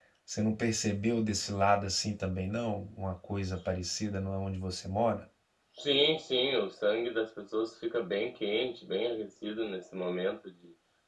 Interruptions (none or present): none